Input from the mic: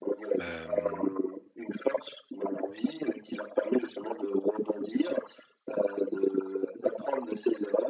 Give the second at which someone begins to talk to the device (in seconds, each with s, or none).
0.4 s